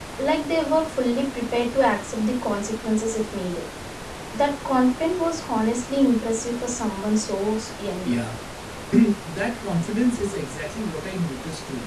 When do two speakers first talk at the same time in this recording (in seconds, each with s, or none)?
none